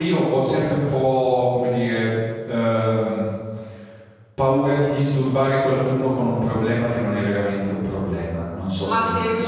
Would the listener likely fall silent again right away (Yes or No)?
No